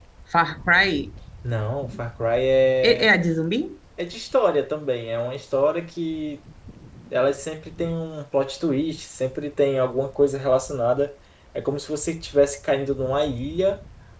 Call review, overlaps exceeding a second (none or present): none